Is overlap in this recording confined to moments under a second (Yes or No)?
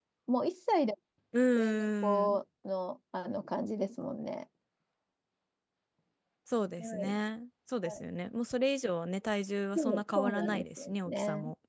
No